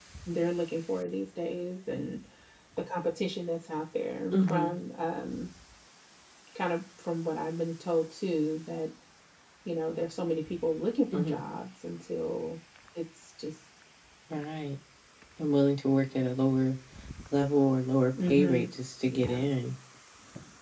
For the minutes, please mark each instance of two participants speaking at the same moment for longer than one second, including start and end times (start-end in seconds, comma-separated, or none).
none